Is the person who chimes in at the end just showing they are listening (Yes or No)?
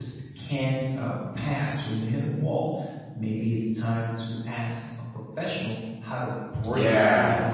No